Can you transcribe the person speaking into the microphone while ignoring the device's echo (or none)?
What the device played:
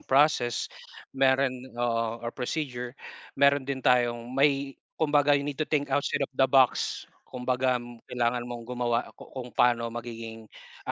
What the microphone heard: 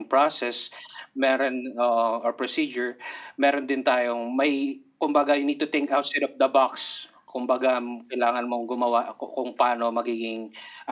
none